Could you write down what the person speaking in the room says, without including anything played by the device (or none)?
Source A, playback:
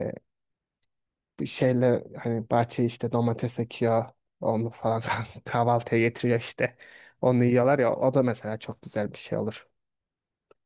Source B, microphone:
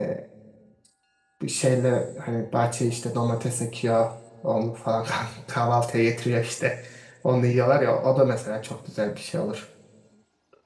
none